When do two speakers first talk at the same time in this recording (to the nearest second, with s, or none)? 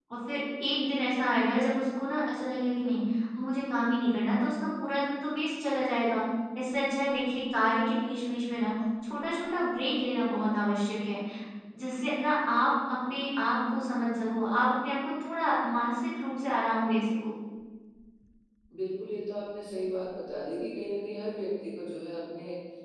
none